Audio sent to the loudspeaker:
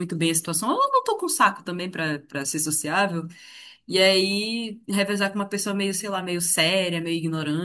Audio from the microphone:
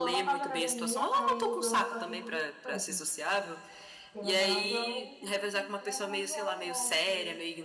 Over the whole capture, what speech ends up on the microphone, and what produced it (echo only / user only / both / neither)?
both